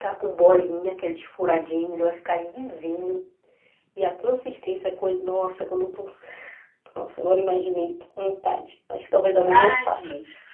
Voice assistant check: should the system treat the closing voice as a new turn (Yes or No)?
Yes